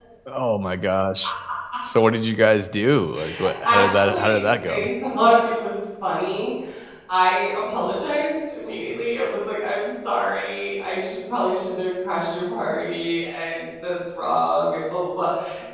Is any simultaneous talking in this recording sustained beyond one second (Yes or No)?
Yes